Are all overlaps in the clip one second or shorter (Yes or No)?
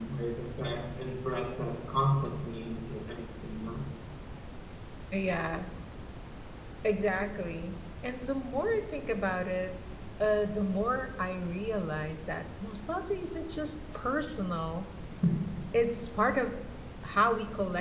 Yes